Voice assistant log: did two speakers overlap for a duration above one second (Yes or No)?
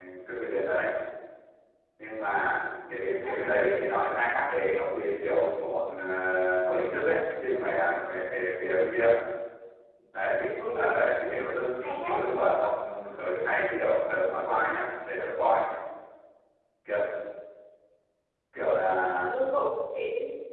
No